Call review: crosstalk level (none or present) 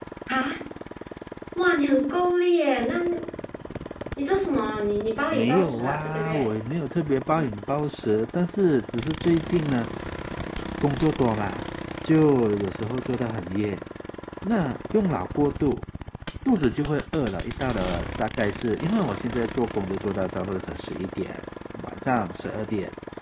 present